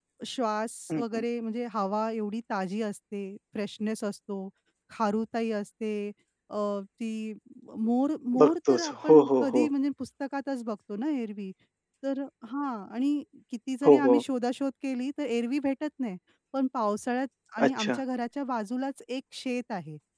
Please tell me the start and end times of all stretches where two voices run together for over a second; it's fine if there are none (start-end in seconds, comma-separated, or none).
8.4-9.7